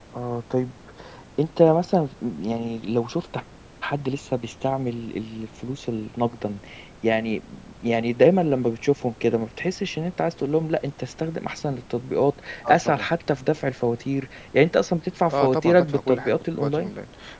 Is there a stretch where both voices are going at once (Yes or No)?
Yes